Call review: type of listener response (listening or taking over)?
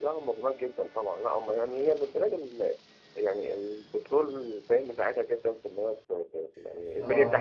listening